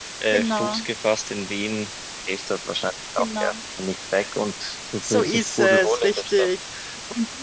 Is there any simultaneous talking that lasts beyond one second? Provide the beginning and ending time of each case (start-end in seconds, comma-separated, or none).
5.1-6.5